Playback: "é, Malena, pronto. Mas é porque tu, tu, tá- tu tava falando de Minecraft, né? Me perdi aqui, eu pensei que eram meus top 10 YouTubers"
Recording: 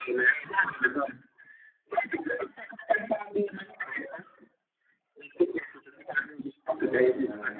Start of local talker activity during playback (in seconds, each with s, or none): 6.7 s